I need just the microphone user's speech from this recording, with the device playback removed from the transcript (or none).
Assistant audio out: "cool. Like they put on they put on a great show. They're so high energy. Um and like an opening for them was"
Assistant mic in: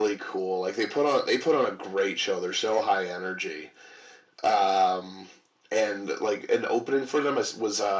none